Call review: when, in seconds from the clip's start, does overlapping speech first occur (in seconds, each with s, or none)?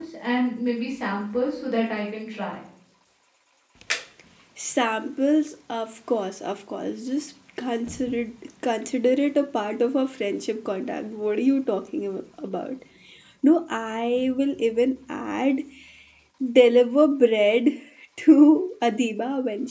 none